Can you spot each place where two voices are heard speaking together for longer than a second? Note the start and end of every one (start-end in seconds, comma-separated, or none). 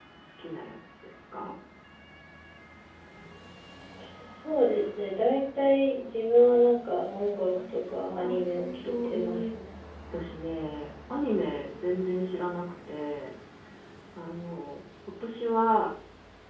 8.1-9.4